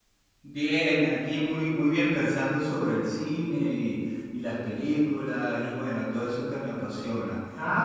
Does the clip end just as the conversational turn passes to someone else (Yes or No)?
Yes